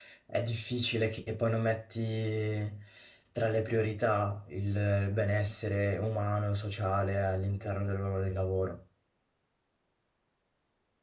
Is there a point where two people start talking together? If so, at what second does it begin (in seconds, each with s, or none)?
none